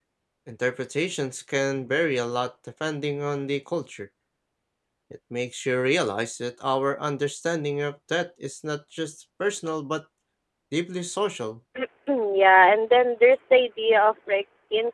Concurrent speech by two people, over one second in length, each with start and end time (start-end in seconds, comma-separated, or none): none